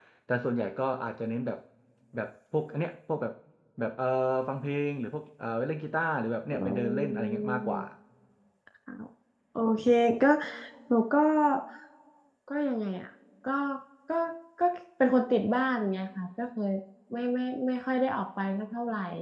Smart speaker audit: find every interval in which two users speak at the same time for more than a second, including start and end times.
6.5-7.8

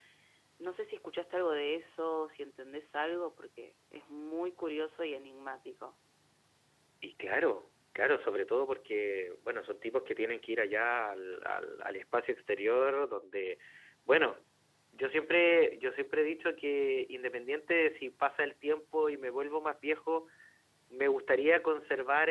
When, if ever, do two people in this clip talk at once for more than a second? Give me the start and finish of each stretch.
none

